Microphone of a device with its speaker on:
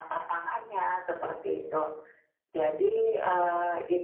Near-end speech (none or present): present